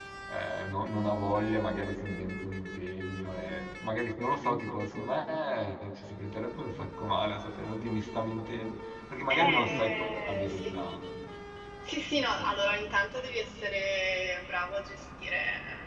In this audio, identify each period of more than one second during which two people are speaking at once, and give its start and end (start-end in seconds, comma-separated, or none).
9.3-10.8